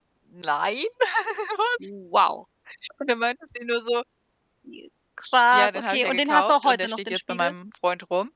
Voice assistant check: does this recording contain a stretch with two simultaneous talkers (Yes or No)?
Yes